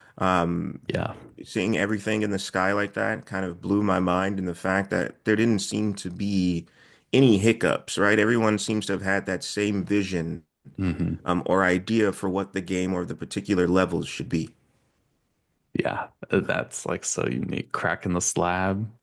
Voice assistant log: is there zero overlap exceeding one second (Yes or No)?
Yes